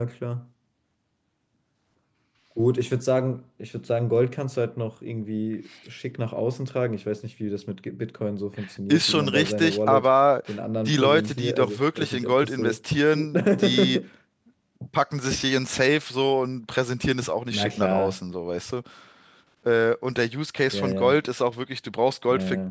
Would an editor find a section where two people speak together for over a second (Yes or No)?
Yes